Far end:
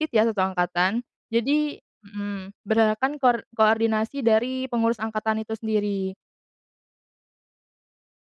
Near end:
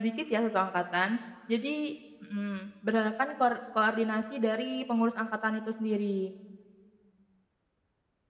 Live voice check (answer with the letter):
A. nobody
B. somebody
A